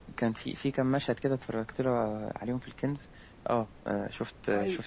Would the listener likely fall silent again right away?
No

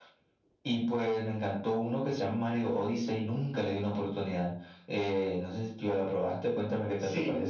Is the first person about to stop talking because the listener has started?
Yes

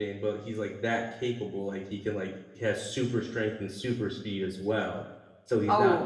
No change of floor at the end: Yes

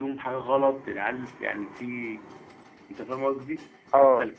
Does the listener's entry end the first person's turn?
No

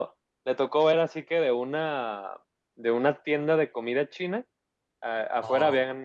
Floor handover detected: No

